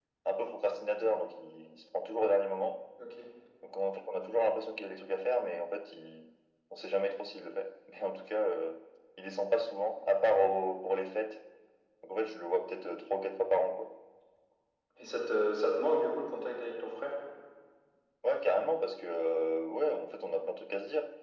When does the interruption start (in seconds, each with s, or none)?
none